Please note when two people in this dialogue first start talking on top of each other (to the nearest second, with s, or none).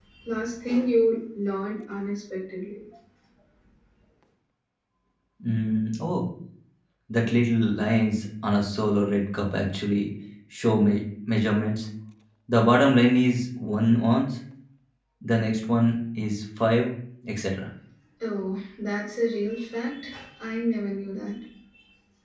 none